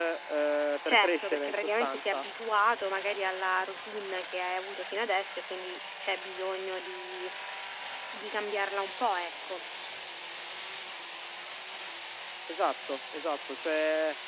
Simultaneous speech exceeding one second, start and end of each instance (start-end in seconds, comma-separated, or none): 0.9-2.2